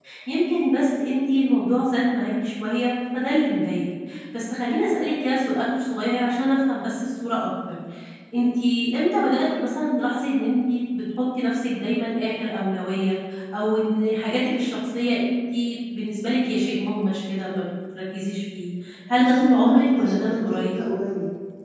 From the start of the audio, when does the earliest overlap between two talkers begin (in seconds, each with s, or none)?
19.2 s